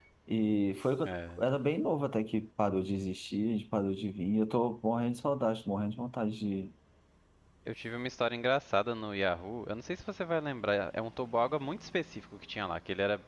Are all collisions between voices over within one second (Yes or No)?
Yes